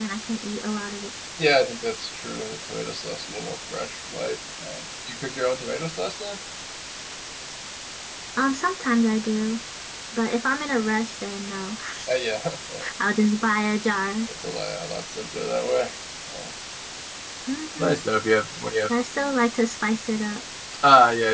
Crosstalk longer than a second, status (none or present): none